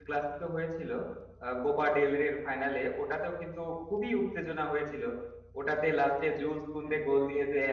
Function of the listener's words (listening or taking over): listening